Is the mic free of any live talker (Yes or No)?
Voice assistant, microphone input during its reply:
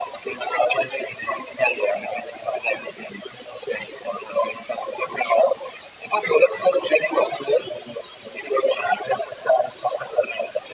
Yes